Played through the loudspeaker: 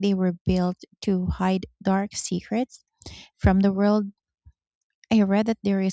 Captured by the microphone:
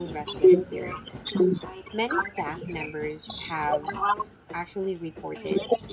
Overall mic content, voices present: both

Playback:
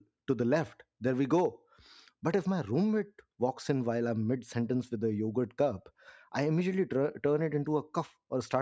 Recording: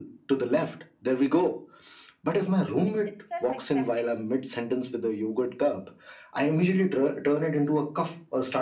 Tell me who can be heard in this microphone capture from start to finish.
both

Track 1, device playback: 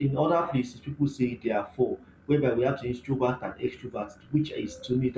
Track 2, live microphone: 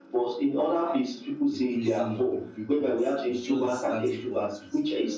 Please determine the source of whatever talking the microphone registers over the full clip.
both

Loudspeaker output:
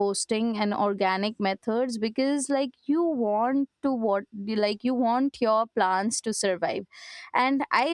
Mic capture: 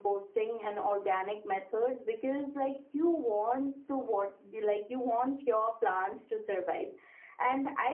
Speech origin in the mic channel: echo only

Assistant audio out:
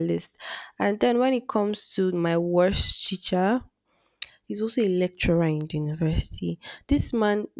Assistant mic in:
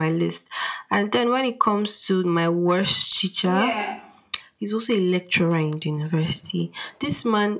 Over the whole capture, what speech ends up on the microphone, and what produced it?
both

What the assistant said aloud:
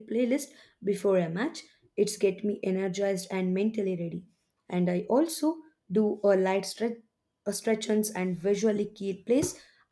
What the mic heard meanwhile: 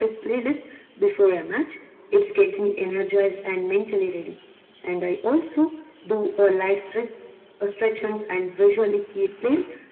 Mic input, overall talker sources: echo only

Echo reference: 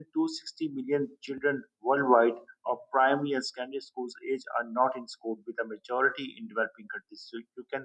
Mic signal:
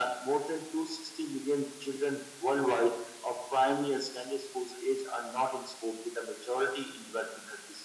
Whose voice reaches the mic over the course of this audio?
echo only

